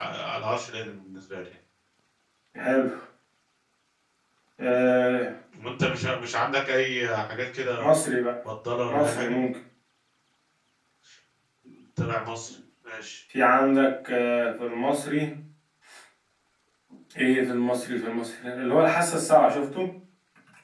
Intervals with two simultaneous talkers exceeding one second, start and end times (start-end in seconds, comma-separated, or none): none